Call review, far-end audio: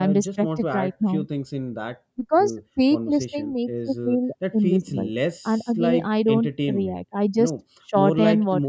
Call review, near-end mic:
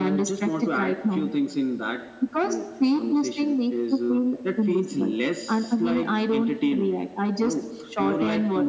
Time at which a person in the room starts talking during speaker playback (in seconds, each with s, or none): none